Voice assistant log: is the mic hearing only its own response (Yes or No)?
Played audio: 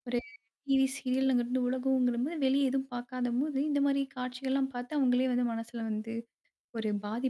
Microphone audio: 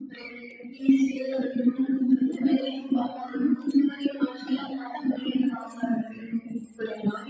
Yes